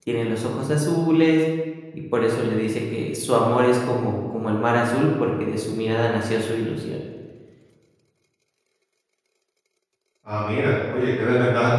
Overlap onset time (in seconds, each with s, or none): none